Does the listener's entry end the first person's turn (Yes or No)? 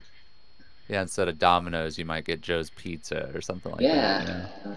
Yes